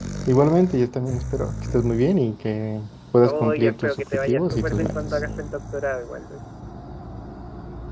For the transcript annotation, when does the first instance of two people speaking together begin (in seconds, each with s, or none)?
3.2 s